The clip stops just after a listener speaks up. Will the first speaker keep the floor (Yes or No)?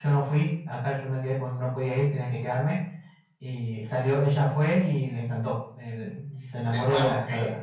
No